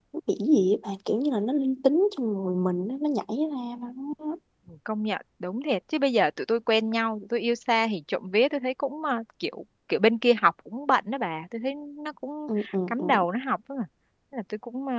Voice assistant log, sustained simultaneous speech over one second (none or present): none